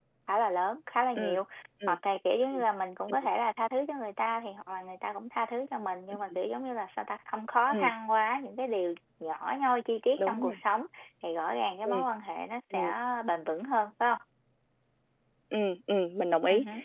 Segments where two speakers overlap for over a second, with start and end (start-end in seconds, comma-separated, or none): none